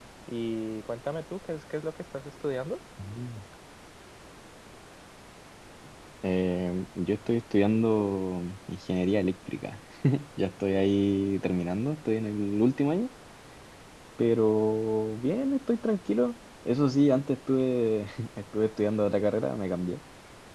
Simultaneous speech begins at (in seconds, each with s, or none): none